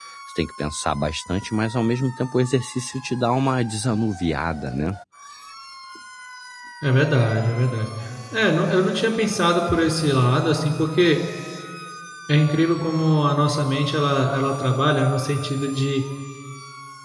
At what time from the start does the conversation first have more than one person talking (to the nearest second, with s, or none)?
none